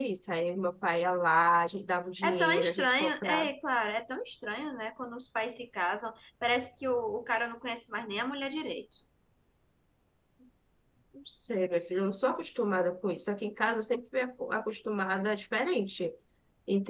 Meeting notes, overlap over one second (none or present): present